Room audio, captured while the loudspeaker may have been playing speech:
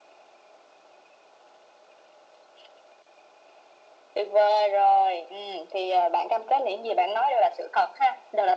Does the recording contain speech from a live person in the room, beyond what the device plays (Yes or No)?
No